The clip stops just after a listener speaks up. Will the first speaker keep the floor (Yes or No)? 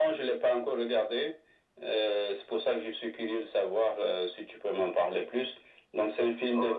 Yes